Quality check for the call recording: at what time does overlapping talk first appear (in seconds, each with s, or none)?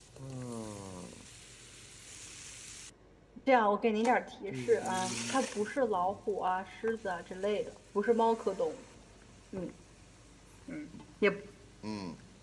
4.5 s